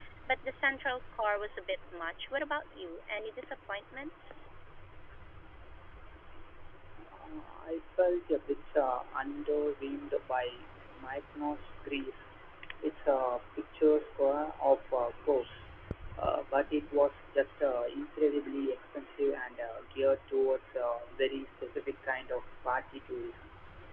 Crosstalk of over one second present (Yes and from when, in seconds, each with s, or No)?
No